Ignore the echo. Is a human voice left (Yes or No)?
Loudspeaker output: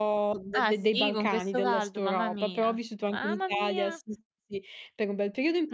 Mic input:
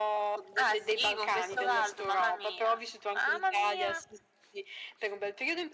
No